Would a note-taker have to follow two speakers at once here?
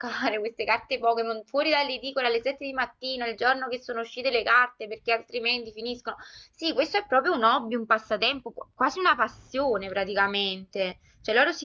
No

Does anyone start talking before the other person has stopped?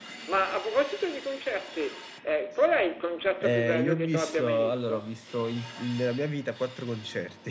Yes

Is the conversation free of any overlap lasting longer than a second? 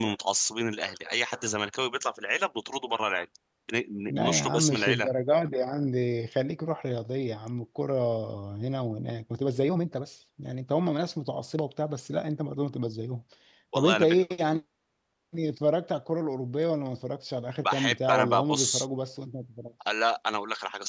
No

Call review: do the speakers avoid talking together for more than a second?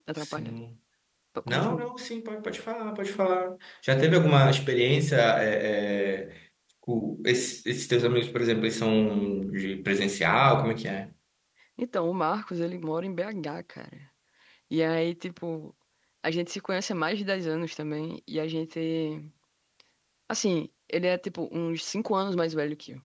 Yes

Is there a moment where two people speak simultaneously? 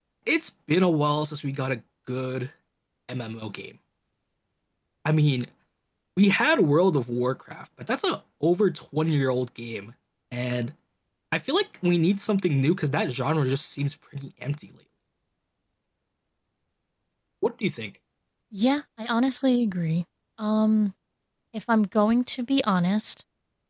No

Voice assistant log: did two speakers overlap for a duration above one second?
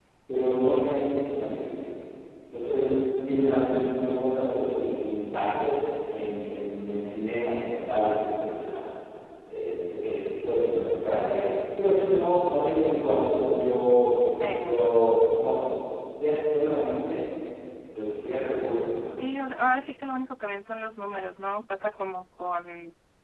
No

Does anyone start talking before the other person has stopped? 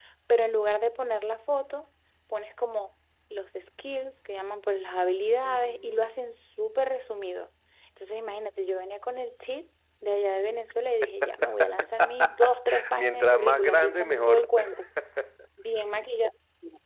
Yes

